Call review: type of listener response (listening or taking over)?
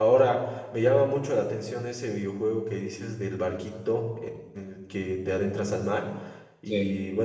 listening